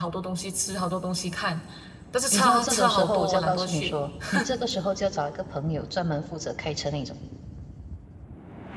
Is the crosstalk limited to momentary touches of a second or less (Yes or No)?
No